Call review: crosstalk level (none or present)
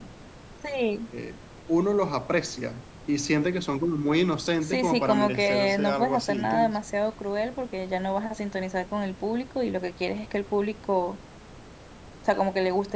present